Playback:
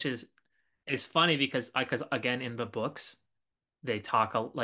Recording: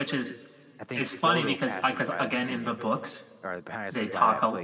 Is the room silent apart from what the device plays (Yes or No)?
No